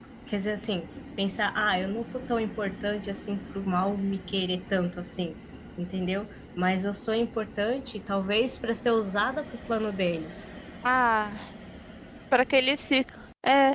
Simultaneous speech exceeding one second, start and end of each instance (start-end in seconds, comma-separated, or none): none